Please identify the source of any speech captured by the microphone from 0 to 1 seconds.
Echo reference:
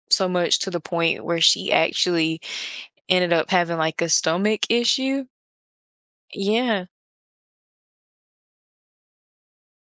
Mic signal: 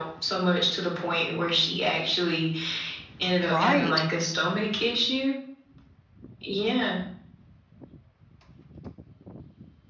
echo only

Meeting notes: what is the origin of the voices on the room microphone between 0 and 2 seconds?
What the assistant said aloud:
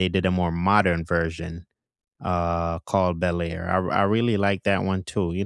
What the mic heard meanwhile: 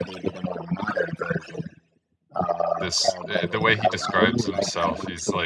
echo only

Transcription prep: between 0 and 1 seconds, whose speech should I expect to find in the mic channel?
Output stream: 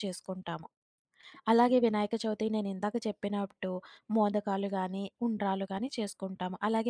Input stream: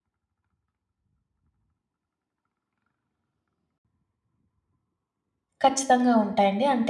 neither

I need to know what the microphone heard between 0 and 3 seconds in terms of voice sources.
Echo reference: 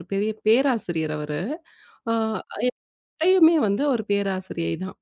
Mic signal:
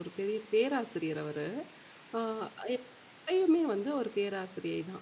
echo only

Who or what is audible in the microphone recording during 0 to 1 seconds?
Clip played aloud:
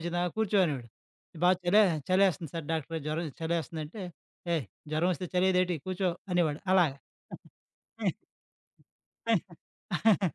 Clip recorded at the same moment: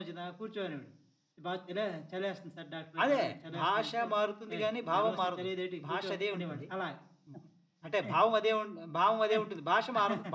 echo only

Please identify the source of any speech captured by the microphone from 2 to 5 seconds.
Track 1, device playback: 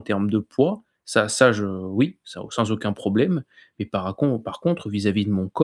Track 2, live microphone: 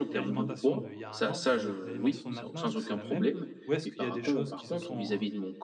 both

